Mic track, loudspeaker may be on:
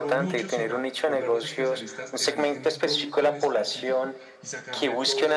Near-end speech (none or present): present